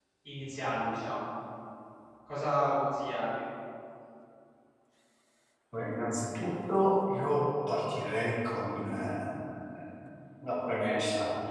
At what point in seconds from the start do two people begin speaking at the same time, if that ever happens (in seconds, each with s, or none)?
none